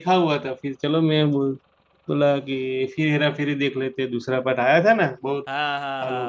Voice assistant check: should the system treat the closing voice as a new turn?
Yes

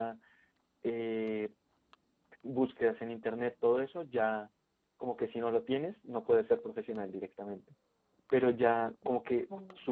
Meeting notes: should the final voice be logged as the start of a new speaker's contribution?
No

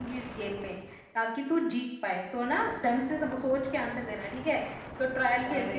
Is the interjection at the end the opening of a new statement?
Yes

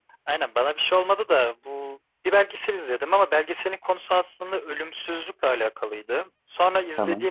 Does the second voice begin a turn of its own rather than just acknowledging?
No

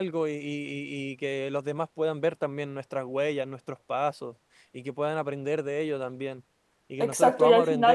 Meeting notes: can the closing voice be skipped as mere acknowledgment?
No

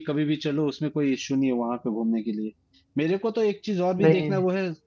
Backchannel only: Yes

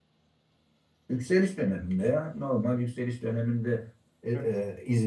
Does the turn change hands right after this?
No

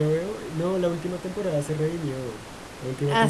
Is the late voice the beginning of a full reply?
No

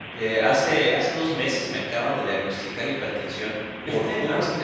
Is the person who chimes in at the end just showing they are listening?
No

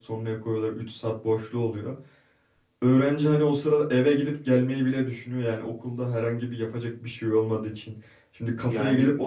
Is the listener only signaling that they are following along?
Yes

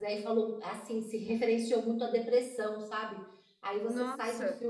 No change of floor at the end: Yes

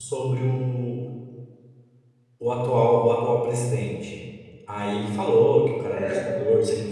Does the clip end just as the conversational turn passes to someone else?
No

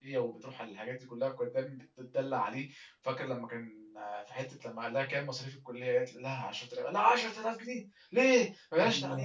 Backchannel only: No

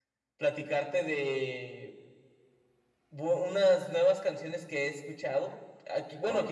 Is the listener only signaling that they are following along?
Yes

